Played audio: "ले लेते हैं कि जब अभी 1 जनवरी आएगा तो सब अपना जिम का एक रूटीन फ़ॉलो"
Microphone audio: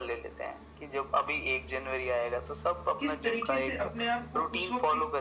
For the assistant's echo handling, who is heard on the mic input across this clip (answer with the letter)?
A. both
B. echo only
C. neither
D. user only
A